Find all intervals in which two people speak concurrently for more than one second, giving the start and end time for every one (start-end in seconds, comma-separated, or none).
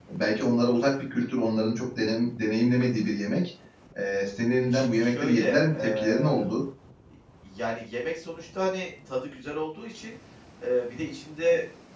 4.6-6.5